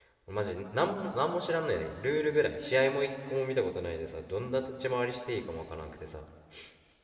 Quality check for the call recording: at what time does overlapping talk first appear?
none

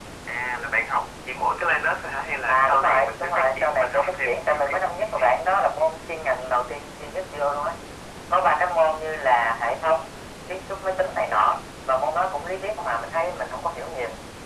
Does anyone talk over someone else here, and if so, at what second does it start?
2.5 s

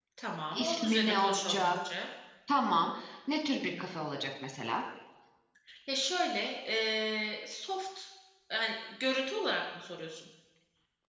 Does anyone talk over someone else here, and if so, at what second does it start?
0.5 s

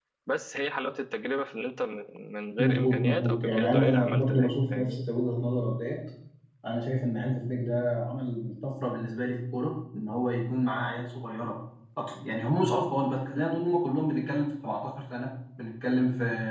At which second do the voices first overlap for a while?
2.6 s

